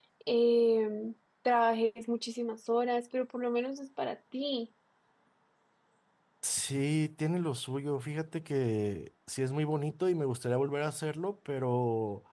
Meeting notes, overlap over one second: none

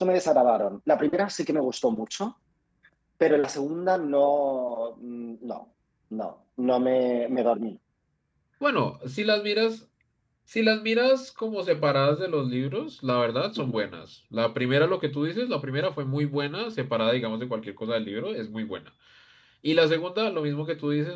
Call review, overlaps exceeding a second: none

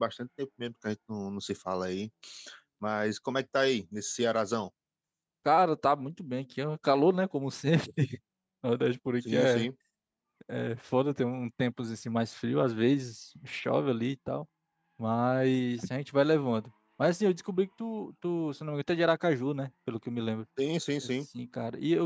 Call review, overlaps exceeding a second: none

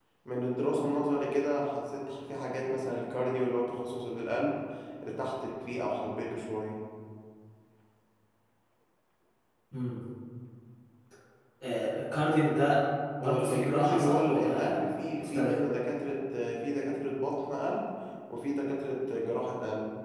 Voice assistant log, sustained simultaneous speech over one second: present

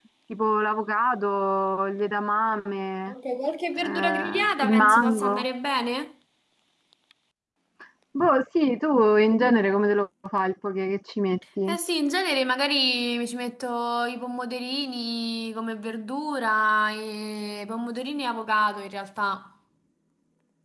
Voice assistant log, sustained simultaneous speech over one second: present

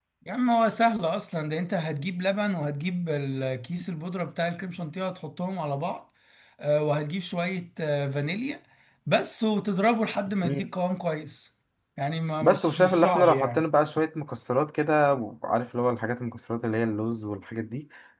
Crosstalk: present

